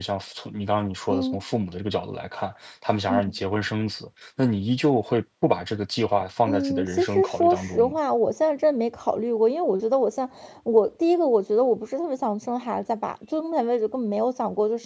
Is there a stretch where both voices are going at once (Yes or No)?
Yes